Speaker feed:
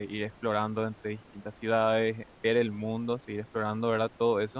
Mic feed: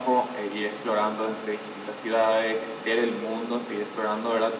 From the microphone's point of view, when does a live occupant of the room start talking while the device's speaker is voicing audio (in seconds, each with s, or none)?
none